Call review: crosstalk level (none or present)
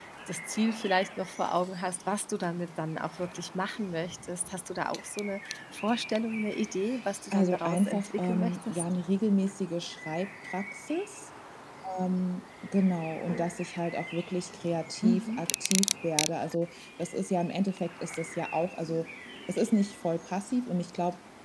present